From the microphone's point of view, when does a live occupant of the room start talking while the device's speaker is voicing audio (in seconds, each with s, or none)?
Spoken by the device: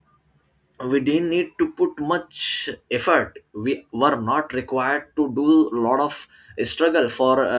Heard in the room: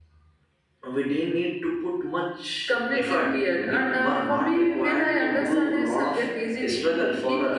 2.7 s